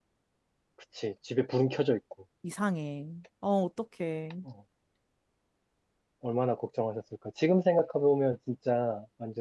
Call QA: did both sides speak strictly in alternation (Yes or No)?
Yes